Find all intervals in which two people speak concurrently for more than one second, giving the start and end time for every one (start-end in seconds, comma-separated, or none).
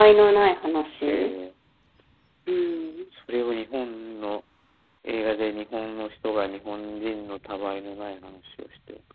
none